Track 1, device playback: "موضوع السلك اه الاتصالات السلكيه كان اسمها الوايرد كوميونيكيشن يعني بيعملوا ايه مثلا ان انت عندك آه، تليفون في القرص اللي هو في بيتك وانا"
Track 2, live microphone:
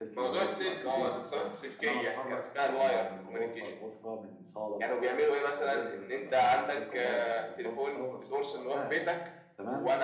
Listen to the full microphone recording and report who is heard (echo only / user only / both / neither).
both